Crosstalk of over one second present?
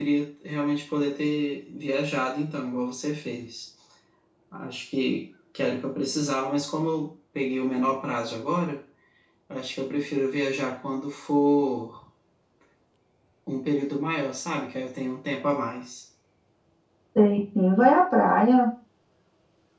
No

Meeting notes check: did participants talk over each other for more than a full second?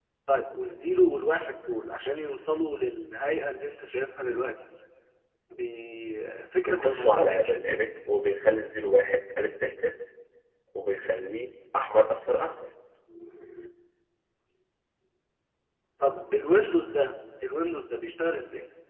Yes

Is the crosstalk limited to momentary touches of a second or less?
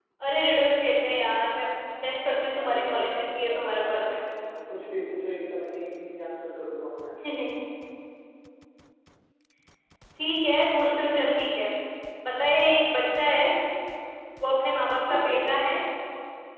No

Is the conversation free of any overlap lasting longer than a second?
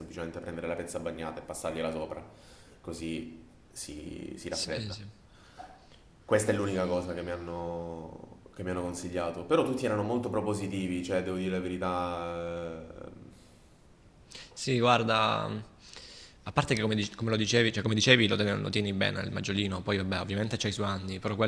Yes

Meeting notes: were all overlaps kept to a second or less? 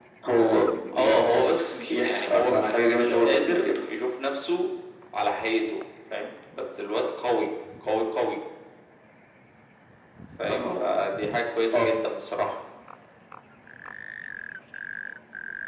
No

